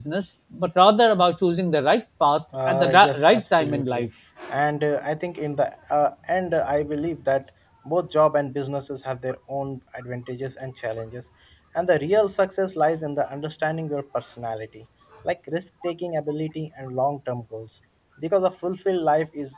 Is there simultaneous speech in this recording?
Yes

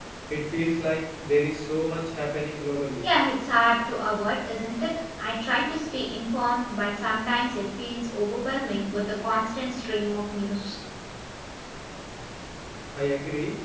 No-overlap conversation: Yes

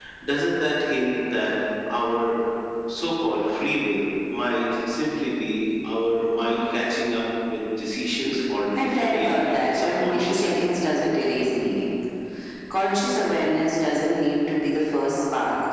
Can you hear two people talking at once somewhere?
Yes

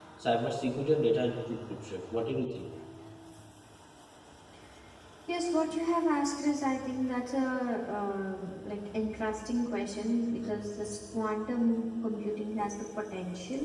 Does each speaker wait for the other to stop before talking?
Yes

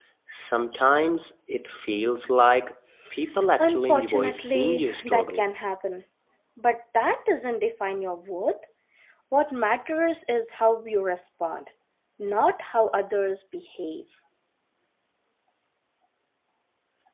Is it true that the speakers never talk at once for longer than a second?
No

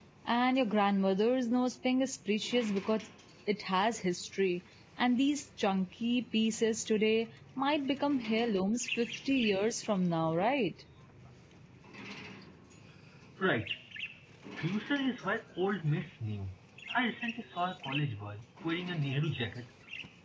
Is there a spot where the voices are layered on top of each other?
No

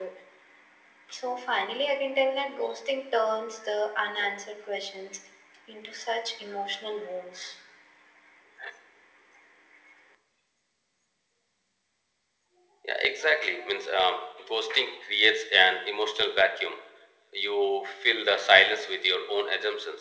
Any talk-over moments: No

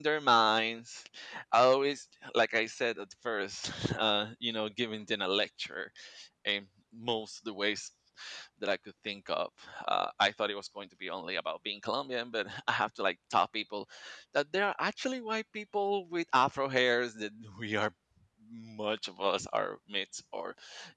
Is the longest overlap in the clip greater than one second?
No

